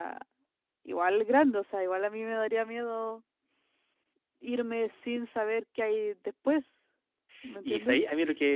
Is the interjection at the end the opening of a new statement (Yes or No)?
Yes